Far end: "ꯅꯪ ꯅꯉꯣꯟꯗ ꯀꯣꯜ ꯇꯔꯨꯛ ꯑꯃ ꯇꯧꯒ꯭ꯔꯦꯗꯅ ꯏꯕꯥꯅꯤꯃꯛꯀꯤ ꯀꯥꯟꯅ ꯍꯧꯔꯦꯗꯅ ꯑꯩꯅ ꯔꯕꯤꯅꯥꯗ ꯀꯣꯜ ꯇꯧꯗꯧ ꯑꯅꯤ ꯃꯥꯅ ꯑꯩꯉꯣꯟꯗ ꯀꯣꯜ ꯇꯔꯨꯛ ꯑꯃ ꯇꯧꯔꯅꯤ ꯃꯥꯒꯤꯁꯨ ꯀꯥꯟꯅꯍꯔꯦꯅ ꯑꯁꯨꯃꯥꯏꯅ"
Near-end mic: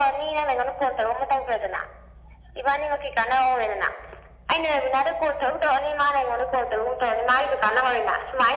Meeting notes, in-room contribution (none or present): none